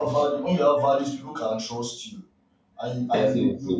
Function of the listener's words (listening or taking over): listening